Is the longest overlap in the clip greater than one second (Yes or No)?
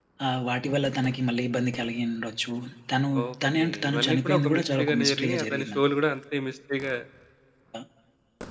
Yes